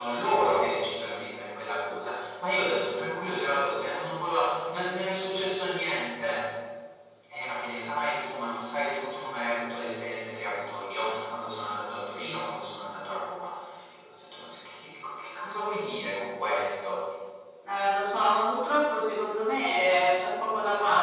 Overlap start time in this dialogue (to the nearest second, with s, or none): none